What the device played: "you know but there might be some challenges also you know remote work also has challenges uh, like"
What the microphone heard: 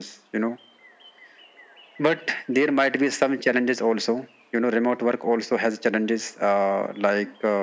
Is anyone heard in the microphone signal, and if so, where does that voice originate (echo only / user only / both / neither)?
echo only